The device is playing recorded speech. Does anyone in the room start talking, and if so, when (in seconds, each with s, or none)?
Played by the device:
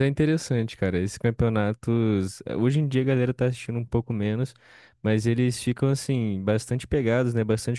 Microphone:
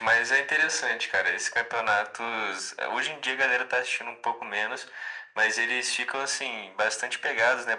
none